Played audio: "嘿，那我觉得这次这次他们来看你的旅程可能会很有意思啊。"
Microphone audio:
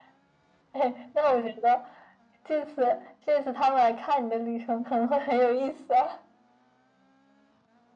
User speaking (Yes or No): No